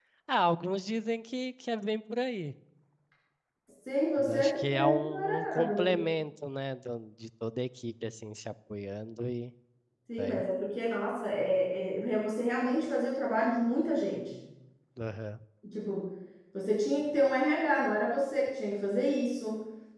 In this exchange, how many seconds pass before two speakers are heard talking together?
4.2 s

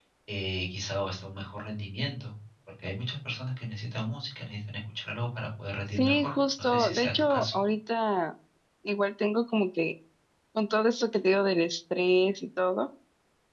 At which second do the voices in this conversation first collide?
5.9 s

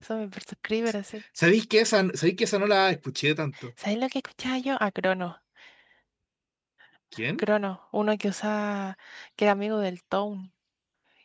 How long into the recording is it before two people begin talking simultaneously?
none

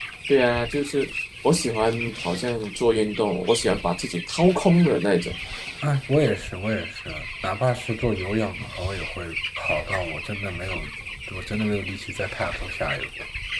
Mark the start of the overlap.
none

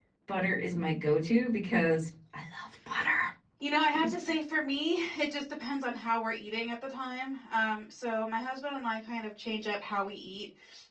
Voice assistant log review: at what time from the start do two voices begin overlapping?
none

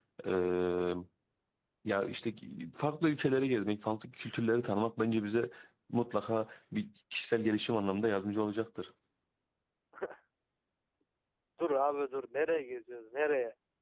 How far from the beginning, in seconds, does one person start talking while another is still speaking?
none

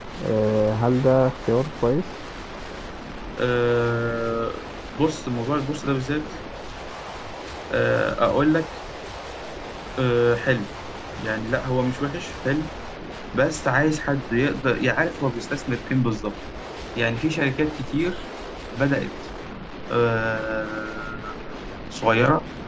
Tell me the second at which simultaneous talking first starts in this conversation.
none

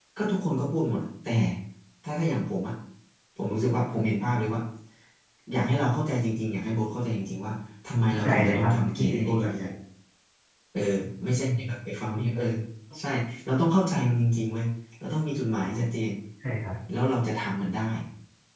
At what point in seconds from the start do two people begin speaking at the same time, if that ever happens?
8.2 s

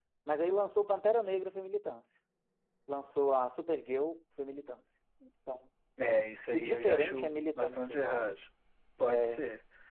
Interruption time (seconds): 6.5 s

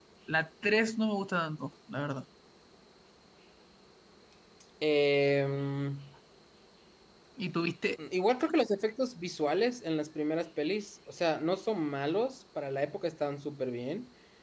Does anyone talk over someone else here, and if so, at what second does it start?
none

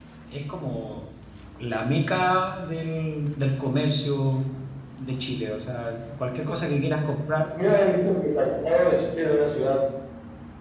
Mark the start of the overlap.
none

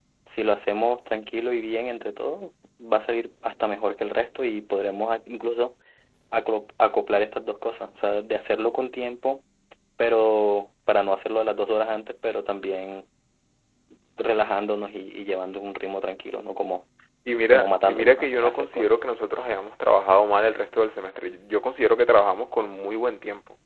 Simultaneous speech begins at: 17.5 s

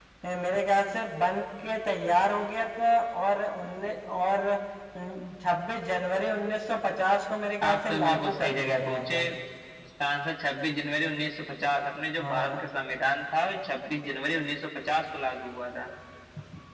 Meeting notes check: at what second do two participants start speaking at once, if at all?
7.6 s

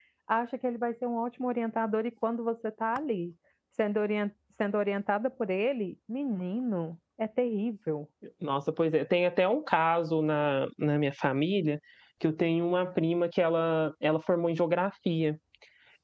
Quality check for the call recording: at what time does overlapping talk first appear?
none

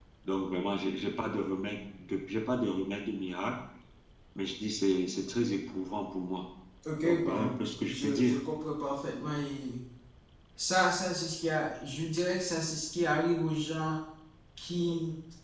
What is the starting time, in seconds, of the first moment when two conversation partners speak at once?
7.0 s

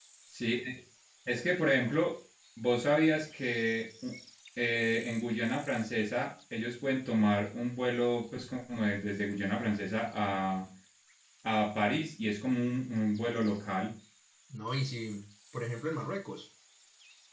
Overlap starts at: none

